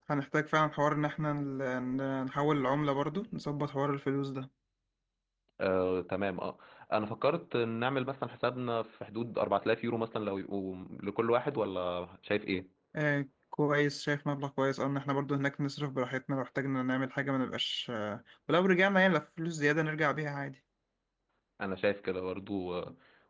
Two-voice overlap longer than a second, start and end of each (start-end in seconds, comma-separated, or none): none